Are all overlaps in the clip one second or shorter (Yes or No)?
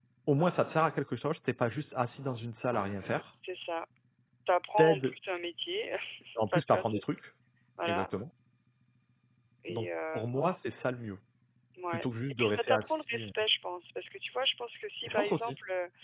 No